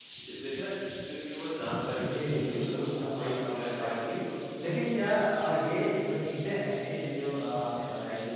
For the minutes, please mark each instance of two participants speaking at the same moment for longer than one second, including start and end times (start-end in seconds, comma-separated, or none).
2.0-4.2